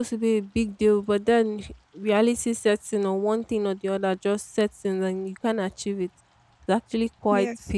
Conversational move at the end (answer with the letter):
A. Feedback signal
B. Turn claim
A